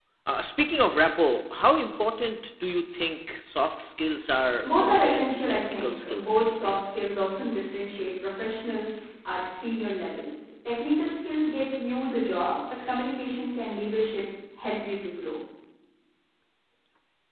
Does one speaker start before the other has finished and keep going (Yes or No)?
Yes